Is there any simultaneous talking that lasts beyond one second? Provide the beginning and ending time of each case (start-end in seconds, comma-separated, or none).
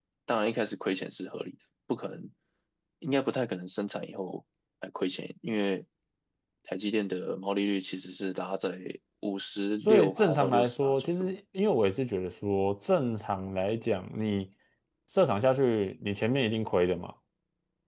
9.8-11.1